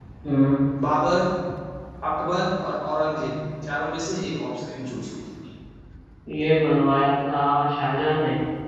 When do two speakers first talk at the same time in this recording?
none

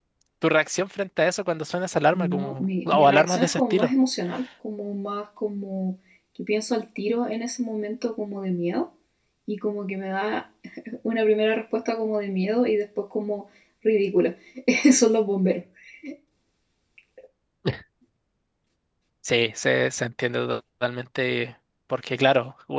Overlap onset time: 2 s

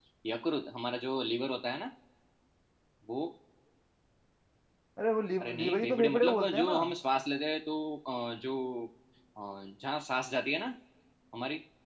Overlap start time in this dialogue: 5 s

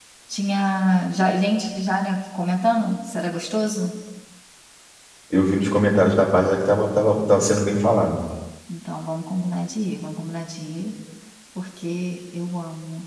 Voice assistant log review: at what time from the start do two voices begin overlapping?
none

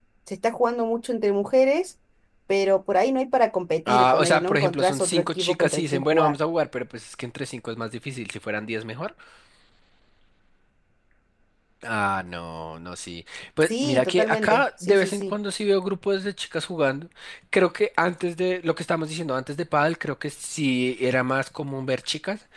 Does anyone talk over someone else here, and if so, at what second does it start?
4 s

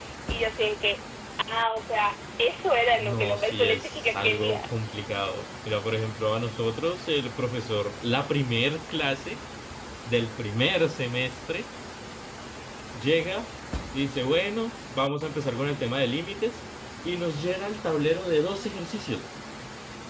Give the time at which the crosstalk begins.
3 s

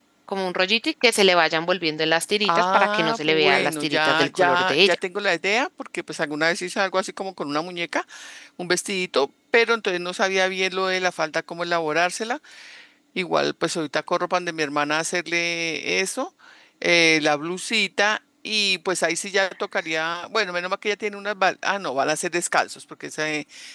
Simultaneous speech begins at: 2 s

